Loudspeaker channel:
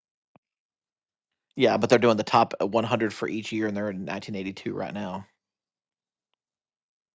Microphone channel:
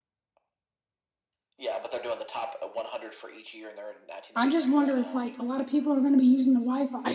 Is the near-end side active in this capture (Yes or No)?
Yes